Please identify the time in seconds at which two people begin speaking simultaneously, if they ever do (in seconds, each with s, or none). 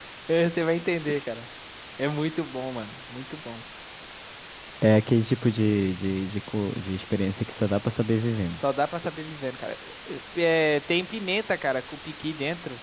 none